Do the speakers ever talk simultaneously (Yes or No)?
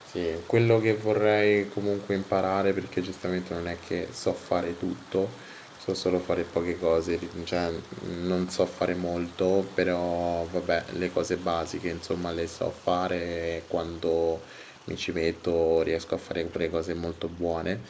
No